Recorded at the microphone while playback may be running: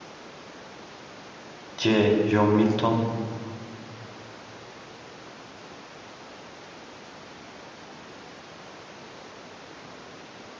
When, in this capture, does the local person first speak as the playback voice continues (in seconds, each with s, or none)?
1.8 s